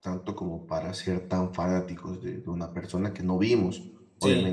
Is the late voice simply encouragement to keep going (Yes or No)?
Yes